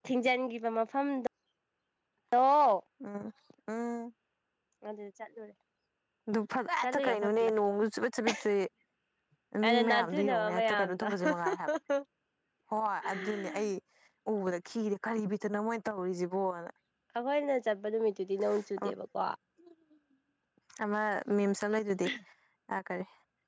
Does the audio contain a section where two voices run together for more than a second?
Yes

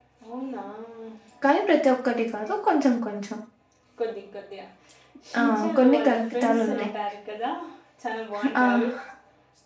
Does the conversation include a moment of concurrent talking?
Yes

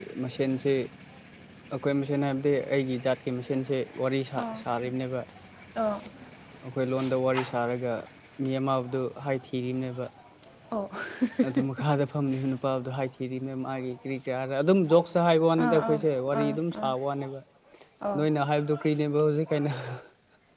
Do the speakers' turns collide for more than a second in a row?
Yes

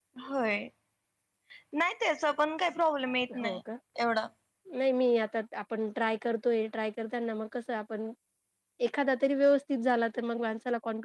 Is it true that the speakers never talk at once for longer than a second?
Yes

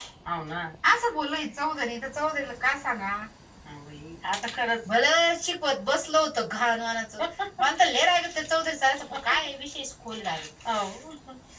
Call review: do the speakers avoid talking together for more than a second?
Yes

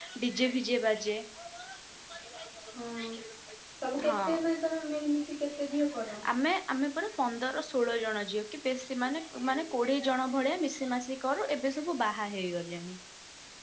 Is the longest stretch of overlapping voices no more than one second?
Yes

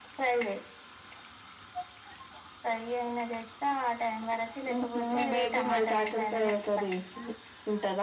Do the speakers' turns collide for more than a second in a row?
Yes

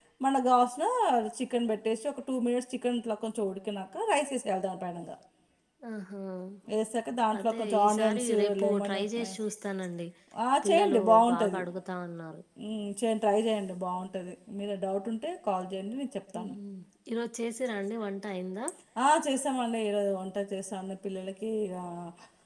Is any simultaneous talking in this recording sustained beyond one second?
Yes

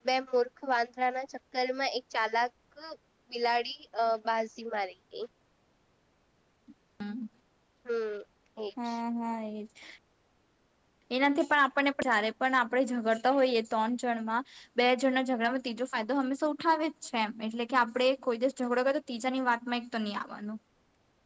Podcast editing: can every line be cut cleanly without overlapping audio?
Yes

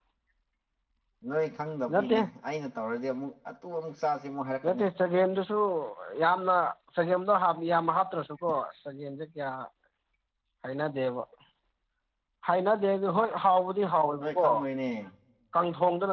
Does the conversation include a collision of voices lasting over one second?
No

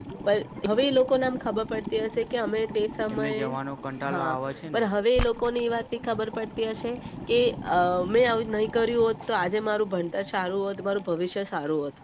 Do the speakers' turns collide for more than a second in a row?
No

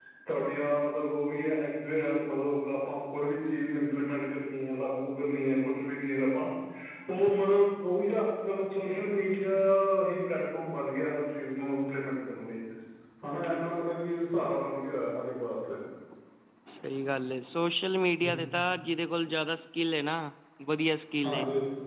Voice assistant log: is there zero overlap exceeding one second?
Yes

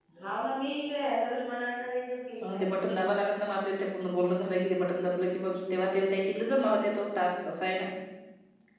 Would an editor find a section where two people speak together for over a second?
No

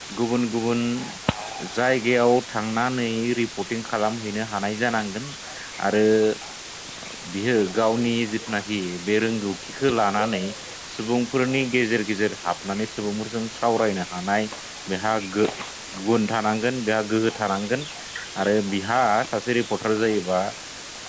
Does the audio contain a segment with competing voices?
No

